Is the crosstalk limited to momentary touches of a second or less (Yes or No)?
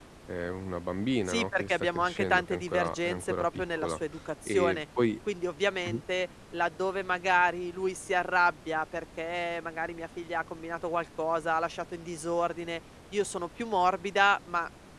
No